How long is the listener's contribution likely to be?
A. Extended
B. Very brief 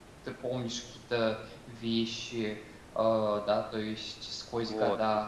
A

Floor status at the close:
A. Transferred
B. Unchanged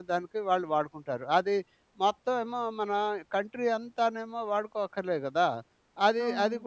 B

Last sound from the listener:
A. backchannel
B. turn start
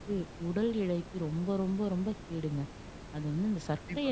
A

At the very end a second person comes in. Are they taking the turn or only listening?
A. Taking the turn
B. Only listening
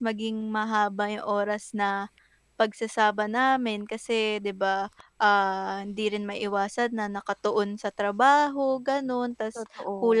B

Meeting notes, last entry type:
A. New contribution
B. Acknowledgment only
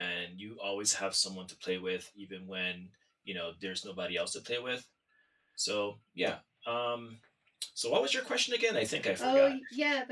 A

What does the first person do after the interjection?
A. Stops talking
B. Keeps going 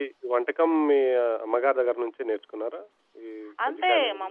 A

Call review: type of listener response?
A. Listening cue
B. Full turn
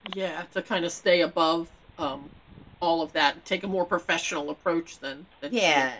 B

